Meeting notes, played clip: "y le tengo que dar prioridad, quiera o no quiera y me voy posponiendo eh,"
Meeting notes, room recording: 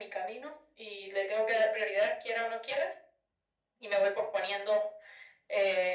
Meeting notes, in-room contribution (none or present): none